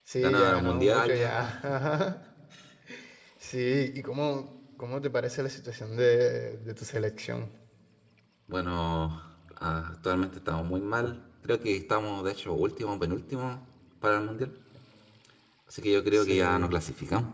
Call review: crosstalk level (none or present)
present